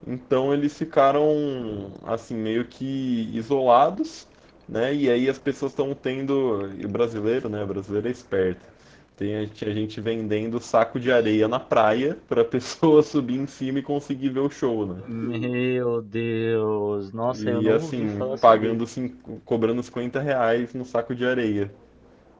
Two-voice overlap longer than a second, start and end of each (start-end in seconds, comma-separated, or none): 17.4-18.8